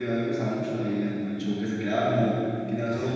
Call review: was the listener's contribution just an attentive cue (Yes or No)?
Yes